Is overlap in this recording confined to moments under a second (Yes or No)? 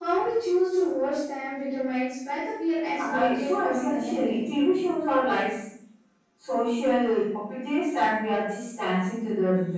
No